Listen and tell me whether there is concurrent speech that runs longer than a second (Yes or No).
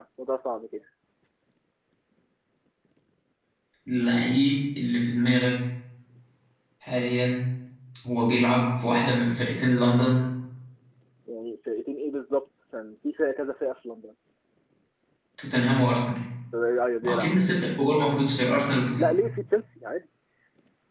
No